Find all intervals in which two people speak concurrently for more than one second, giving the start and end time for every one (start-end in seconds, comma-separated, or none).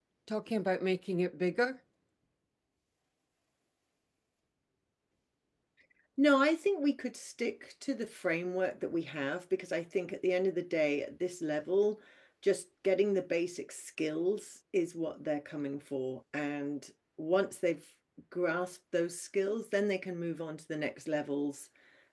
none